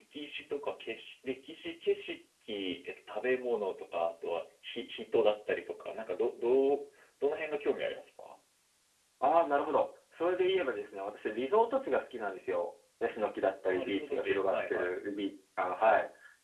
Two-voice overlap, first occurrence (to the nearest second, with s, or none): 14 s